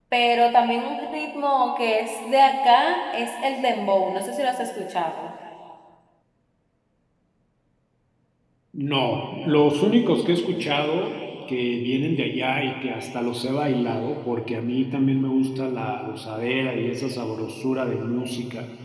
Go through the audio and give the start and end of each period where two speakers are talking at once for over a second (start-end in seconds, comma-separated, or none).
none